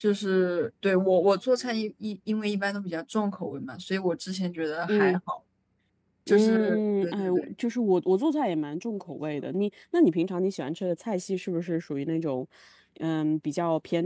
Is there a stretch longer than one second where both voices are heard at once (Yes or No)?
Yes